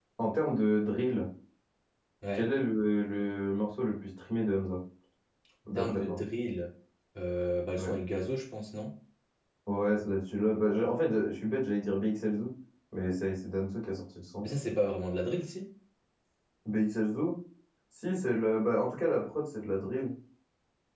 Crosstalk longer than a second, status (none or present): none